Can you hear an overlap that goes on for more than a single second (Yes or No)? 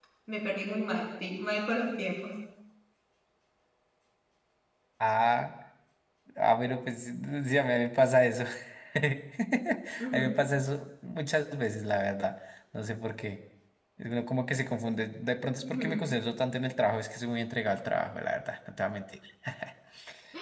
No